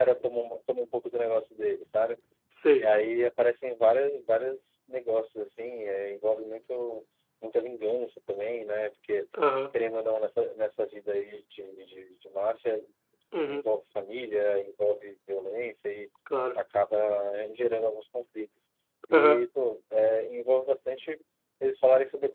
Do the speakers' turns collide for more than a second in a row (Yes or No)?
No